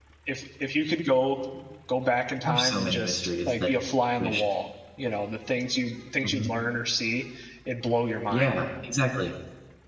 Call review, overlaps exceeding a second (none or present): present